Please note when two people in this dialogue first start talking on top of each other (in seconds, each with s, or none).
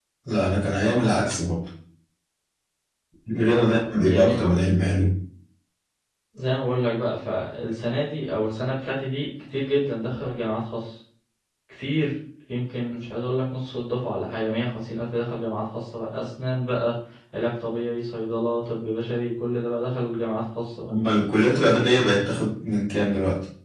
3.3 s